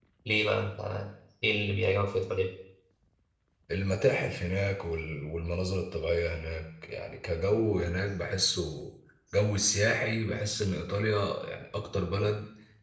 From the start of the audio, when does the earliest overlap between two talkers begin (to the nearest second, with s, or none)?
none